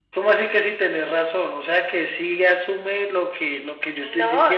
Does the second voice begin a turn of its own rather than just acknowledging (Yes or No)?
Yes